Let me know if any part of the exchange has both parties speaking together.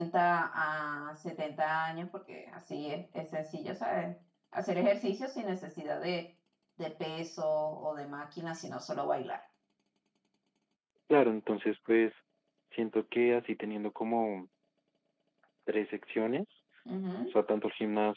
No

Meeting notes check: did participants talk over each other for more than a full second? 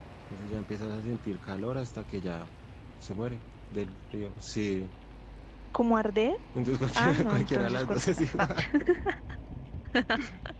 Yes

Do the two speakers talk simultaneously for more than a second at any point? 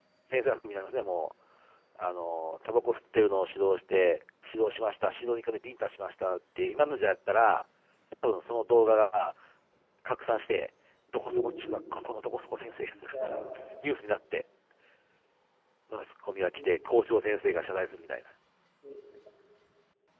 No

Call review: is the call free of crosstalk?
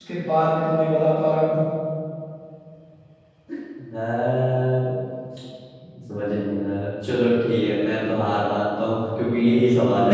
Yes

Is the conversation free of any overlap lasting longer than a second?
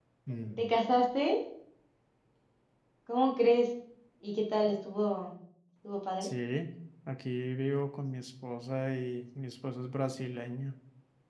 Yes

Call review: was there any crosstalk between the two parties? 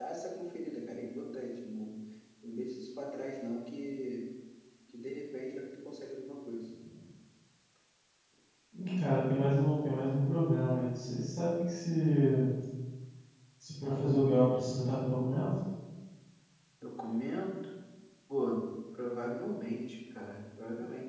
No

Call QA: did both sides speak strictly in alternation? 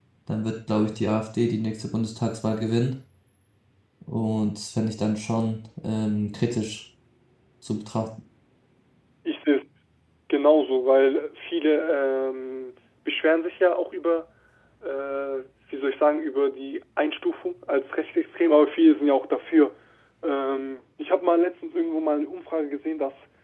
Yes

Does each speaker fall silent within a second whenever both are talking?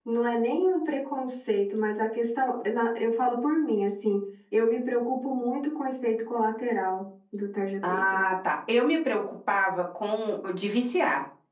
Yes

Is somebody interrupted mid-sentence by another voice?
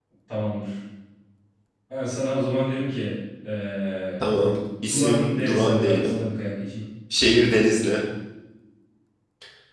Yes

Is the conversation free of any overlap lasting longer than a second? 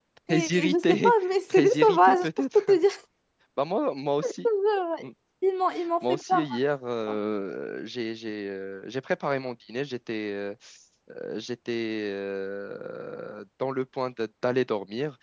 No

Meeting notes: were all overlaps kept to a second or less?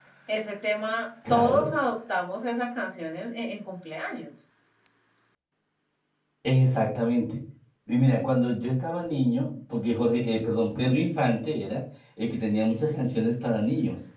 Yes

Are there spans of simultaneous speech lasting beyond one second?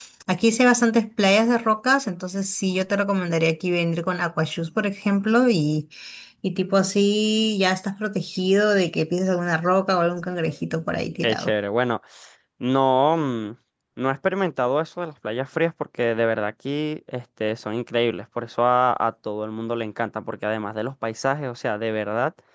No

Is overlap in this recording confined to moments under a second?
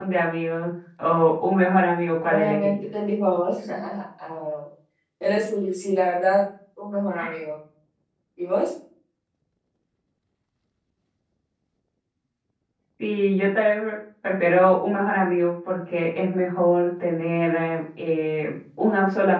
Yes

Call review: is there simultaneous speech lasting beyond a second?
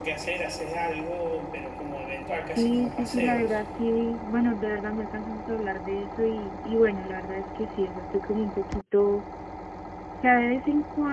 Yes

